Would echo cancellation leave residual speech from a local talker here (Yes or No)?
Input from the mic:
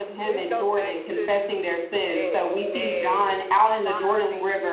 Yes